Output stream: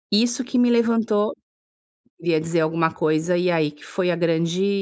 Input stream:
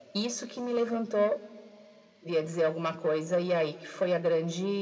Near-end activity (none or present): none